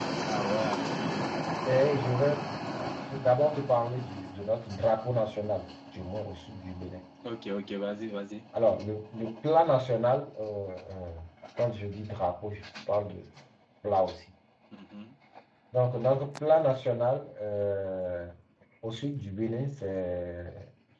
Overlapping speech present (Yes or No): No